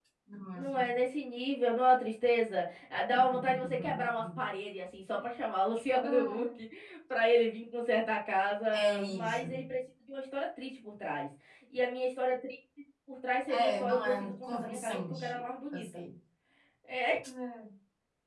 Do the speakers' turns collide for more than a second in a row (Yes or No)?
Yes